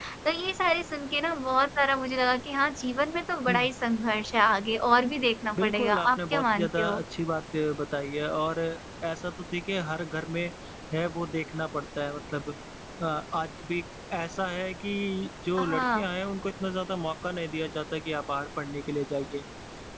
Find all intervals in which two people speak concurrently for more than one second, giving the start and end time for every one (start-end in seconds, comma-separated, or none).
5.6-7.0